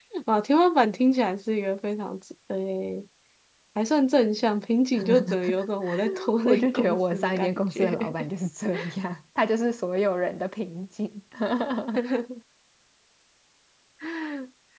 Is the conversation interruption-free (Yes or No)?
No